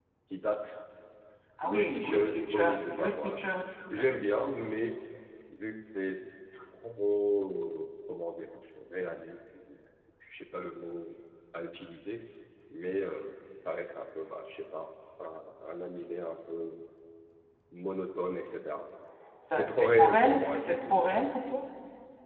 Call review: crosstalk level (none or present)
present